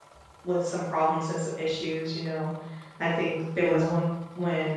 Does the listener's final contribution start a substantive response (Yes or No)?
No